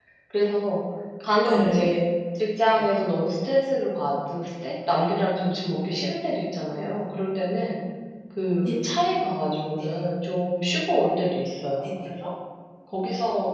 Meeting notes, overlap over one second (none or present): none